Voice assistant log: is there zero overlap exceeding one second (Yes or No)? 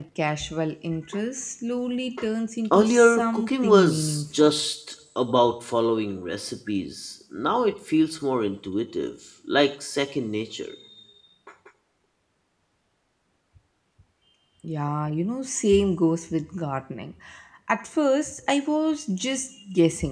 No